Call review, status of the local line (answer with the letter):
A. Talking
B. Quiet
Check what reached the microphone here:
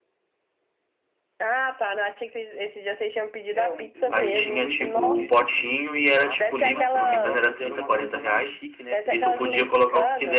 A